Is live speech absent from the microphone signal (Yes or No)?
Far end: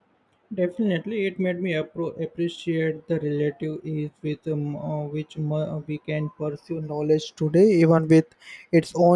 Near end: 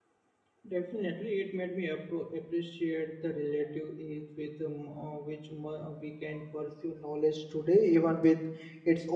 Yes